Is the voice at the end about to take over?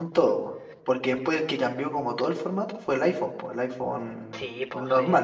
Yes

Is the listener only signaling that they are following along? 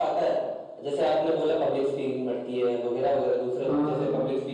Yes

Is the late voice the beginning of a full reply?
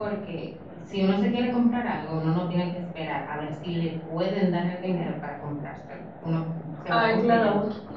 Yes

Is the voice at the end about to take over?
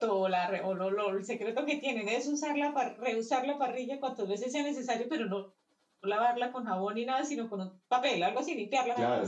Yes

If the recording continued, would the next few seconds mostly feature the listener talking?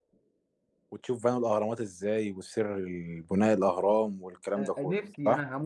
Yes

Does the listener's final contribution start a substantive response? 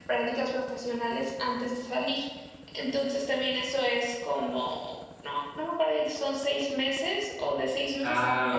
Yes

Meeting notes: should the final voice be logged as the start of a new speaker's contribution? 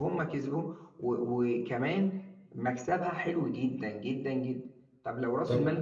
No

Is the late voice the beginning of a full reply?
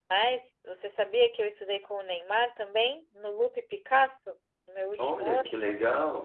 Yes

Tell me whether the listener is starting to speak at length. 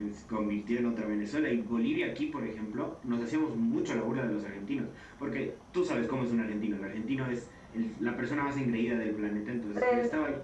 No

